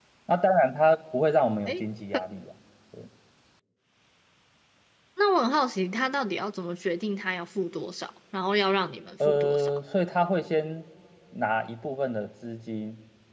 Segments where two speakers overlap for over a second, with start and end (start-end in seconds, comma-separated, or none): none